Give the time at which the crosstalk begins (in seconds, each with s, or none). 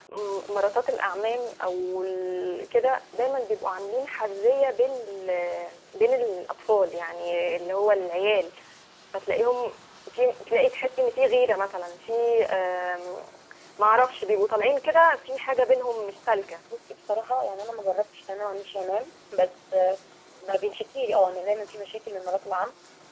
none